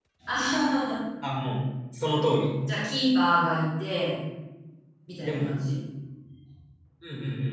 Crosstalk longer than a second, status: none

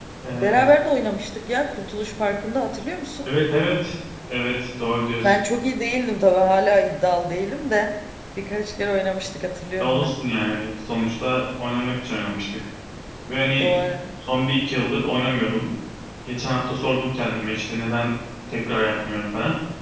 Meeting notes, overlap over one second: none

